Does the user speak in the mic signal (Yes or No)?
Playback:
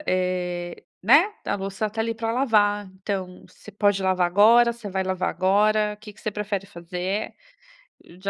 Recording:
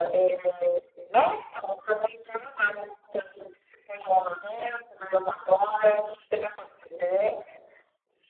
No